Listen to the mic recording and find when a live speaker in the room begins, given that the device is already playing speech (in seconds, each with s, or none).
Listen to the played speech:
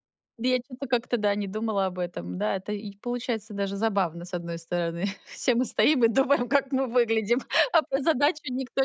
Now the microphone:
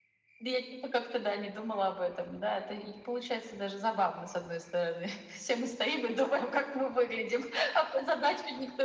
none